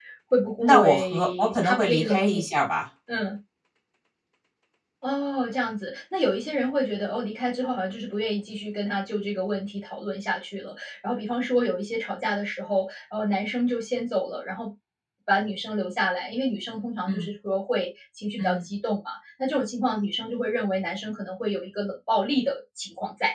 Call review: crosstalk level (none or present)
present